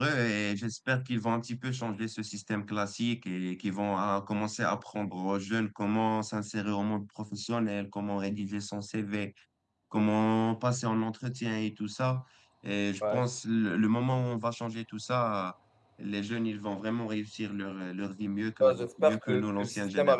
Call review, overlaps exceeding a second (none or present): present